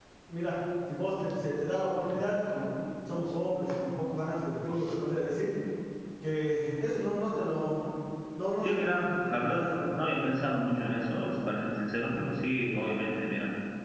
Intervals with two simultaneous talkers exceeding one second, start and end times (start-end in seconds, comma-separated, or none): 8.6-10.0